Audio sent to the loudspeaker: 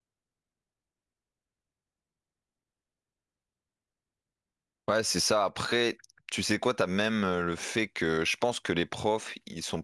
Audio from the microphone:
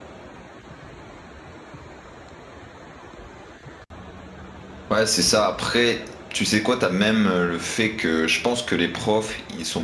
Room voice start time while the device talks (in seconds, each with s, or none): none